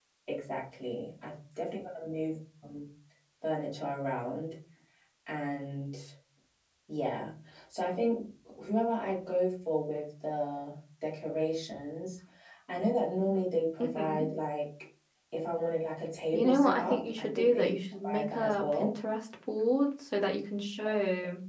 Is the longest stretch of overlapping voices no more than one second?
No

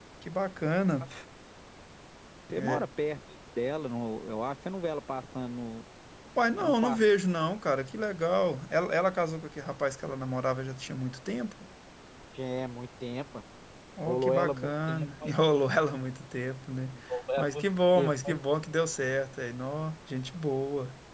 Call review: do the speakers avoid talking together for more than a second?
No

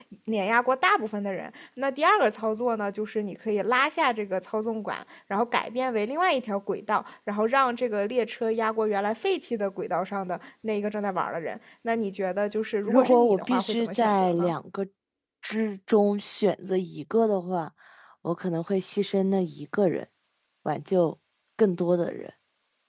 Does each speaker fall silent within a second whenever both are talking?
No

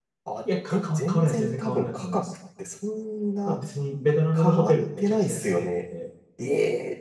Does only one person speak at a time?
No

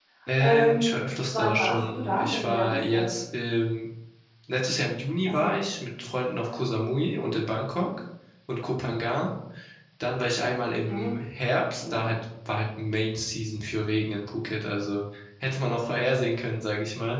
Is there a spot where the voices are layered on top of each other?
Yes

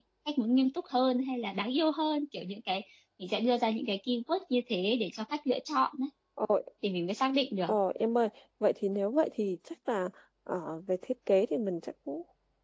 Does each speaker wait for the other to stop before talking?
Yes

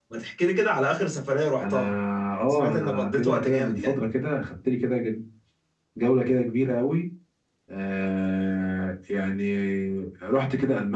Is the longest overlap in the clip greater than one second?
Yes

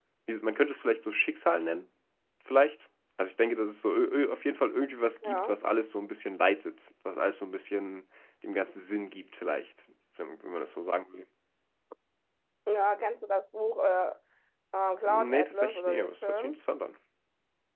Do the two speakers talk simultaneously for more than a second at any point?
Yes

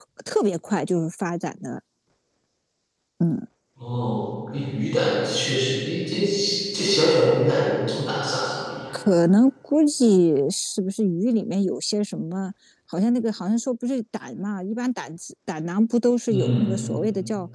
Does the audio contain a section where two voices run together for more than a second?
No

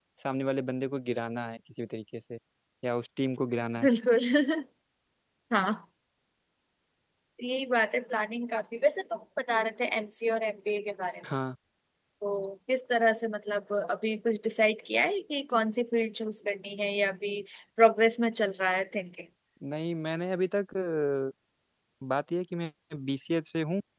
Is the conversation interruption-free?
Yes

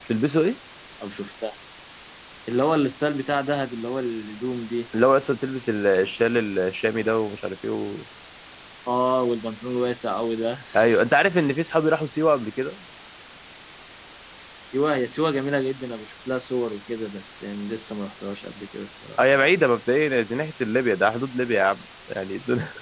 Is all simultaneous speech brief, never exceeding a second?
Yes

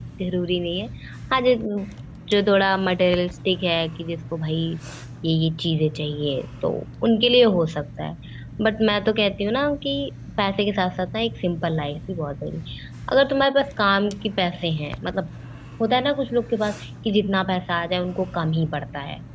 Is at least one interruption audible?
No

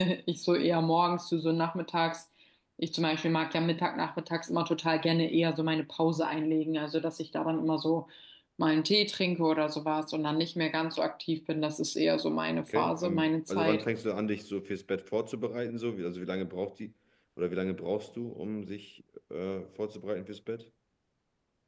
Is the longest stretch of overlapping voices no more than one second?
No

